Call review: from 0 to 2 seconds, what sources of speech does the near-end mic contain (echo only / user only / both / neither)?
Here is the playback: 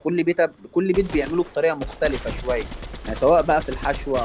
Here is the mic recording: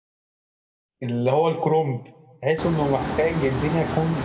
user only